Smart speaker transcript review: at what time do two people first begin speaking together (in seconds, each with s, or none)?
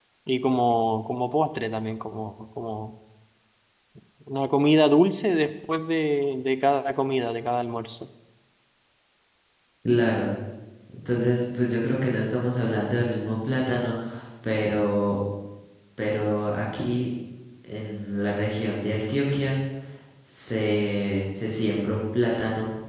none